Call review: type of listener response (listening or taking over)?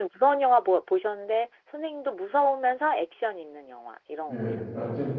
taking over